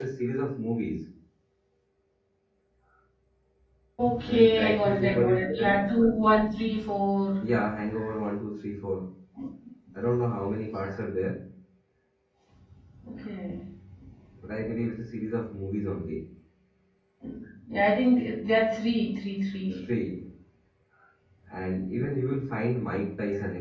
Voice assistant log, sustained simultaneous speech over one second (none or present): present